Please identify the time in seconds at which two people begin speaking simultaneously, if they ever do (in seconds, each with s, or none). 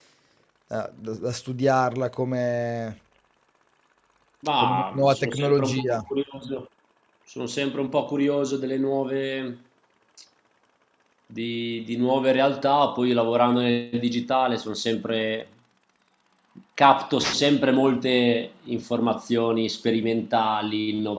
4.6 s